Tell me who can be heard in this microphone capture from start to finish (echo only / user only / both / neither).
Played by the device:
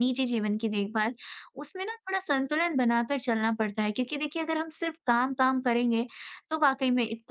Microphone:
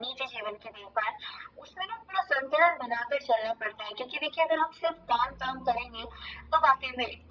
echo only